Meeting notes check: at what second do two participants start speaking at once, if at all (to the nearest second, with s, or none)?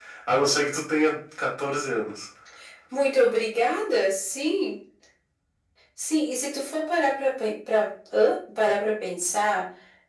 none